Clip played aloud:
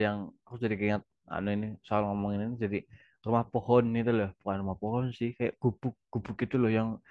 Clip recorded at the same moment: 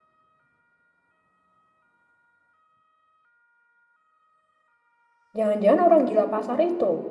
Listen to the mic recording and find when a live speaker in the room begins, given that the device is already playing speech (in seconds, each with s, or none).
5.4 s